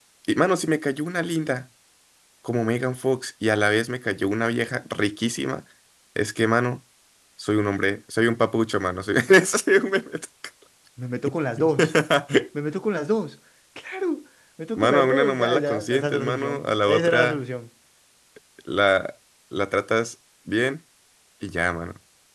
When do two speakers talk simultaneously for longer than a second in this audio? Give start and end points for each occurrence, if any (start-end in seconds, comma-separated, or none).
14.8-17.4